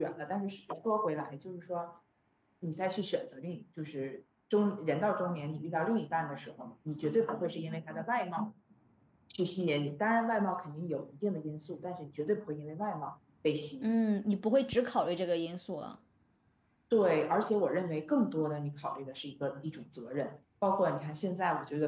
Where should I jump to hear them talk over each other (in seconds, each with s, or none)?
none